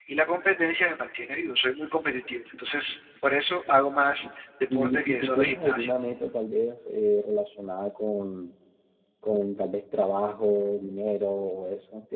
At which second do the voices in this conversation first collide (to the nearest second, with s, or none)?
5 s